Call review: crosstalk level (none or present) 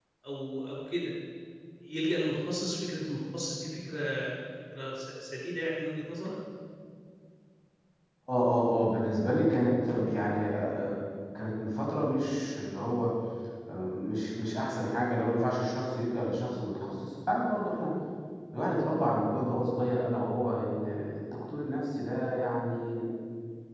none